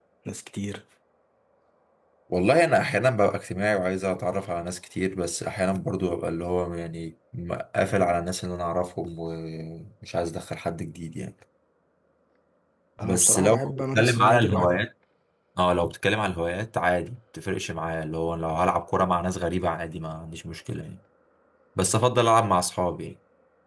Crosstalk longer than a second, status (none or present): present